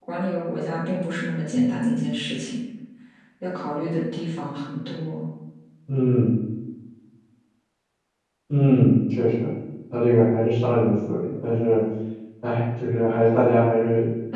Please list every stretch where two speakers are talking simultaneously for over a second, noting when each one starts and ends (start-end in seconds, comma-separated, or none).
none